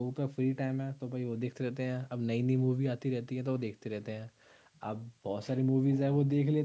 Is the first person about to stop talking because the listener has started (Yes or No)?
No